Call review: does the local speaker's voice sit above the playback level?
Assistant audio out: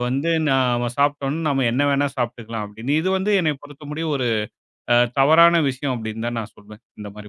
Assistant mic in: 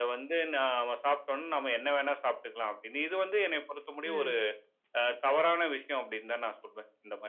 No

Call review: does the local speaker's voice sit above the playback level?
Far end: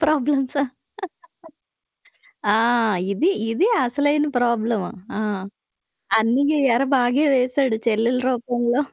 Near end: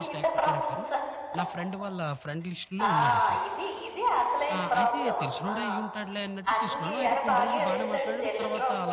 No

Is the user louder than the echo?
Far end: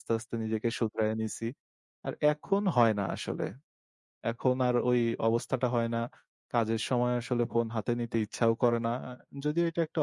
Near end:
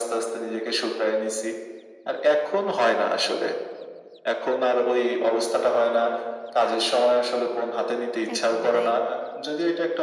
No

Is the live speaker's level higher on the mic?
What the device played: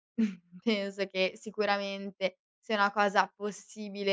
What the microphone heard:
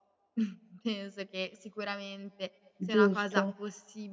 Yes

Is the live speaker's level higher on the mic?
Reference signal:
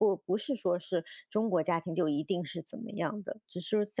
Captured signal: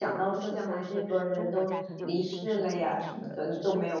Yes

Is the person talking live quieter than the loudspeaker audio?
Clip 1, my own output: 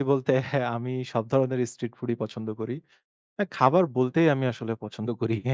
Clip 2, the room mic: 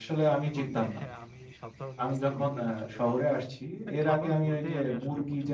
No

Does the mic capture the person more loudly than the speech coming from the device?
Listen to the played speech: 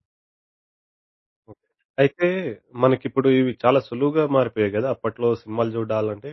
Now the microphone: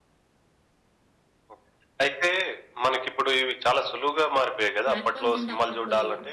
No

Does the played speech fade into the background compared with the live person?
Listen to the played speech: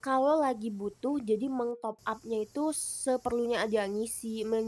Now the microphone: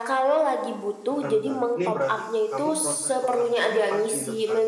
No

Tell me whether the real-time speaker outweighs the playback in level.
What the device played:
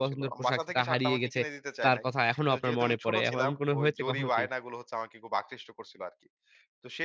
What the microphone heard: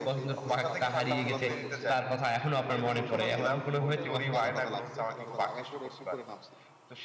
No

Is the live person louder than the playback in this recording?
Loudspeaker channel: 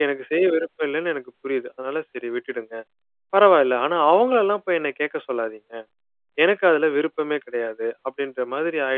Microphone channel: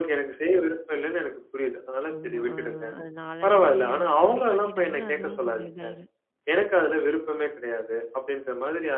No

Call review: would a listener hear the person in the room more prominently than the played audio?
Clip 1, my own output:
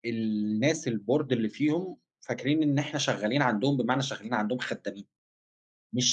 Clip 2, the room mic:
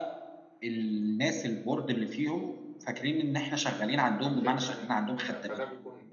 No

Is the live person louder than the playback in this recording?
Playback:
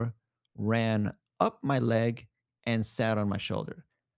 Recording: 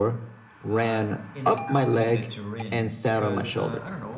No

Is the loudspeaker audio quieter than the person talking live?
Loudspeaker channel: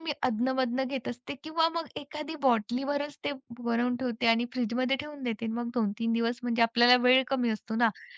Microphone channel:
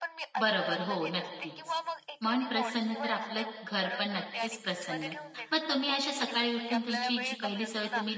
Yes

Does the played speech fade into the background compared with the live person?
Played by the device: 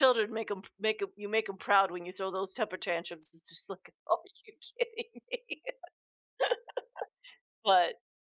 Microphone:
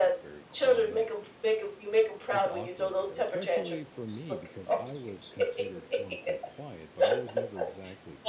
No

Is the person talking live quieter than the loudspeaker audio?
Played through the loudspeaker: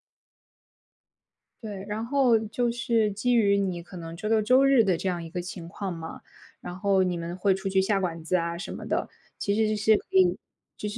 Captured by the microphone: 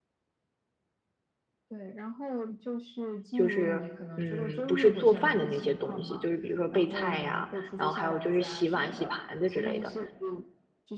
No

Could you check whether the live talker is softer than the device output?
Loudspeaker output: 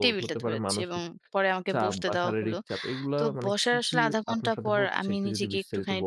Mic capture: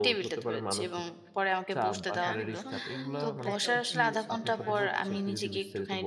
Yes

